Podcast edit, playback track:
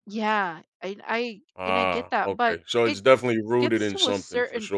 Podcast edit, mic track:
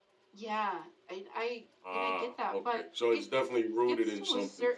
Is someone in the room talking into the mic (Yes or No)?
No